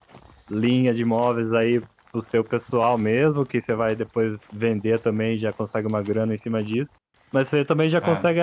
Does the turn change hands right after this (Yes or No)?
No